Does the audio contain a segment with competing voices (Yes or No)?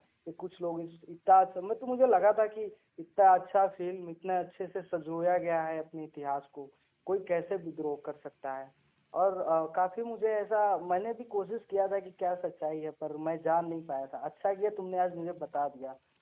No